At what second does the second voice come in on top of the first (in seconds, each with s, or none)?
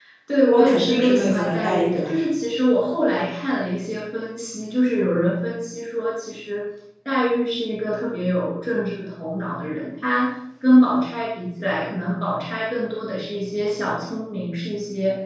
0.5 s